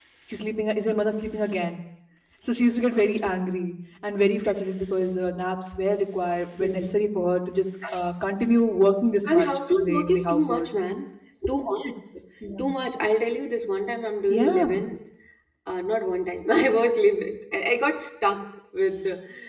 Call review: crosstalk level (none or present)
present